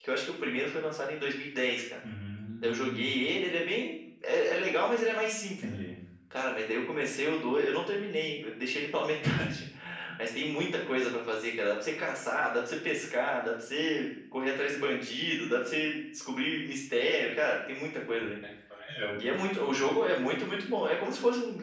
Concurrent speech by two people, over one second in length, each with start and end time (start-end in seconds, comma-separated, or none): none